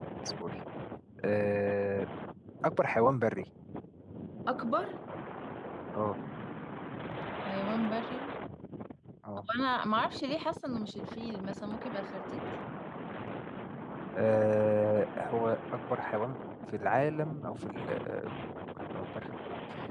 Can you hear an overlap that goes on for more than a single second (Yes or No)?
No